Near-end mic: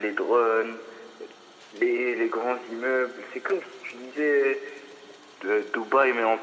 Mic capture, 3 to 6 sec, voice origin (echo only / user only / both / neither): echo only